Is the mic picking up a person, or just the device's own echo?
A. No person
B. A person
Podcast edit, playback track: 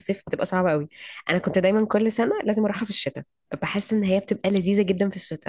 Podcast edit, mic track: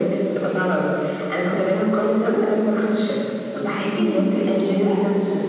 B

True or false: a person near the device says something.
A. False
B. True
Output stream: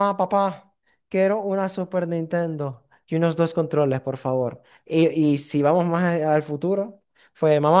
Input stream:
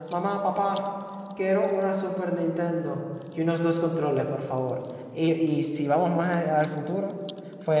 A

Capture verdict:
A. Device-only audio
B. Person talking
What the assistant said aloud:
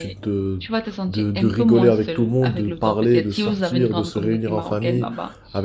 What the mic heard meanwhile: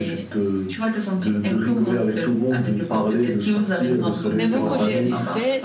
B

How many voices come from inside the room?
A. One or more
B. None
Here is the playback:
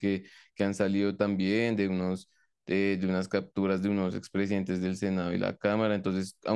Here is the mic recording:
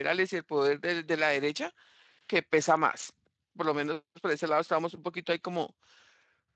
A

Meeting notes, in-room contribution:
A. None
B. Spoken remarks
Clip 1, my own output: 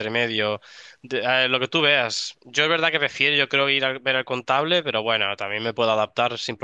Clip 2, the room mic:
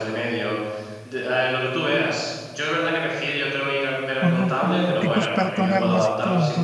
B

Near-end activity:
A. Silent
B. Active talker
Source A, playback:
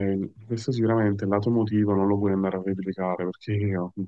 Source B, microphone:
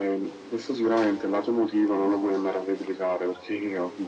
A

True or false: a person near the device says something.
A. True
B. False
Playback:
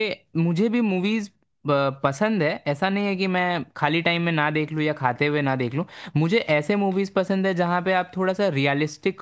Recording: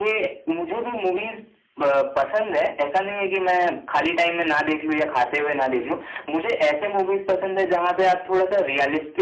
B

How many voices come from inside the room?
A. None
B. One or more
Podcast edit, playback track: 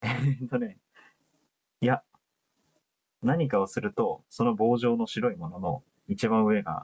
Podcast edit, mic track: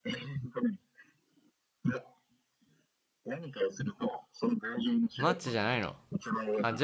B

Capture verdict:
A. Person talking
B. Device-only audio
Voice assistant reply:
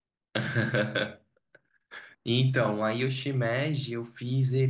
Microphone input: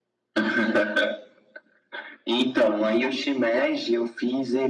B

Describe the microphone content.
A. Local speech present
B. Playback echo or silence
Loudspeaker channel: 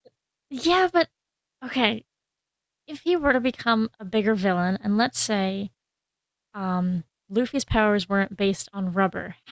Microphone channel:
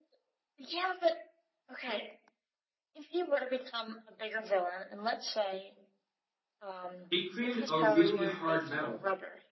A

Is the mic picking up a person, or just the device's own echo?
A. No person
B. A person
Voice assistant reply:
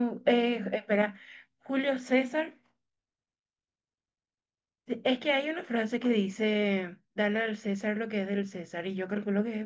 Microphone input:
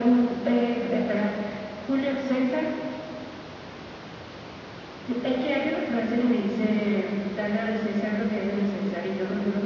A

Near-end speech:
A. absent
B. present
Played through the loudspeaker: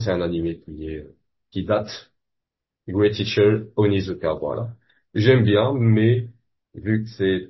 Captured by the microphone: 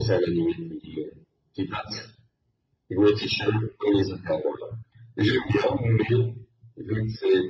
A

